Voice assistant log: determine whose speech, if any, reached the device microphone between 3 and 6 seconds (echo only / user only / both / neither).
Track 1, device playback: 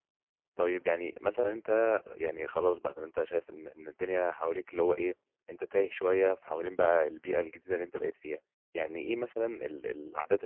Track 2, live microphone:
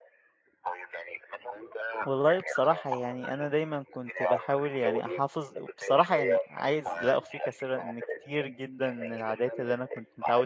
both